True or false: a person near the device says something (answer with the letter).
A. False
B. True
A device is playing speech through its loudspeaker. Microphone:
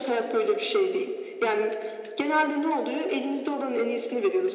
A